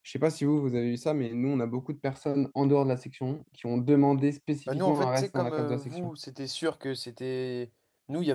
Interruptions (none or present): present